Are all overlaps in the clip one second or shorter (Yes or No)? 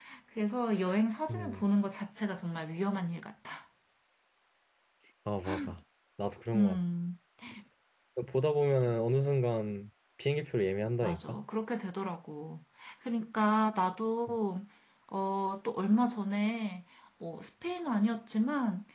Yes